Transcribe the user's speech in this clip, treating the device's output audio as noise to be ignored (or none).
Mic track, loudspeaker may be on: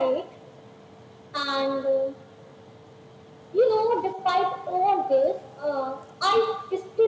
none